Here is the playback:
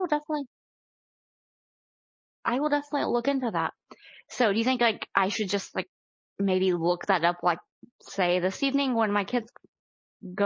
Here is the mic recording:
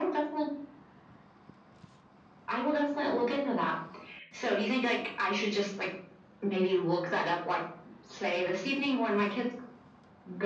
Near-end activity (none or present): none